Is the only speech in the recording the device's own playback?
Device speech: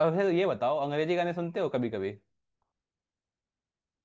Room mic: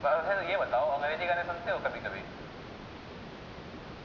Yes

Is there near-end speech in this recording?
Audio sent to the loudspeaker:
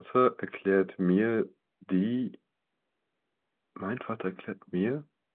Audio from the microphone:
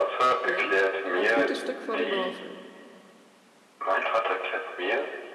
Yes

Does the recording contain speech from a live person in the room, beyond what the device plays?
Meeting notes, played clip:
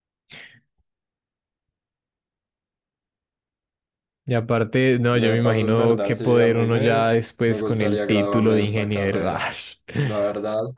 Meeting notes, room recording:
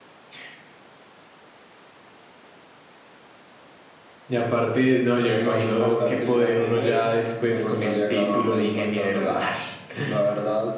No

